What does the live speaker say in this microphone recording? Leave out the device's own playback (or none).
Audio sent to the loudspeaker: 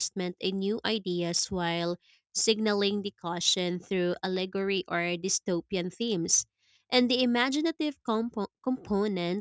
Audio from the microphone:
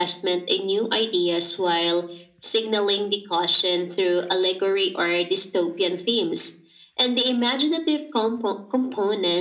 none